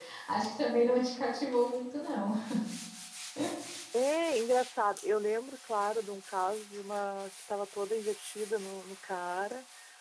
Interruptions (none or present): none